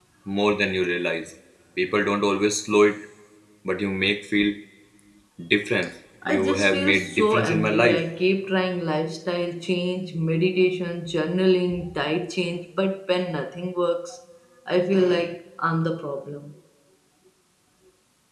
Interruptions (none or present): present